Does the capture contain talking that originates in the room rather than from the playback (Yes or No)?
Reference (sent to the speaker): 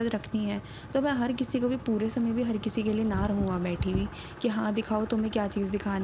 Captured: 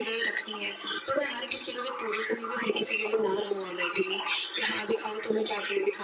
No